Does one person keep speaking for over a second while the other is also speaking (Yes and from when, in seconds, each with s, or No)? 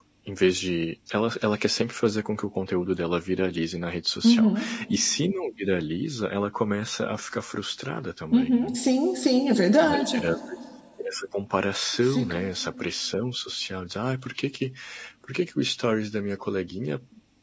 No